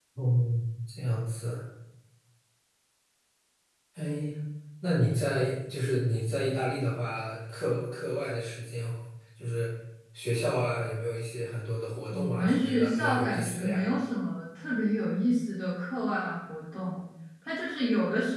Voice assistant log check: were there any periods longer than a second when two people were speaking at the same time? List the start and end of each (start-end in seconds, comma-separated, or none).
12.1-13.8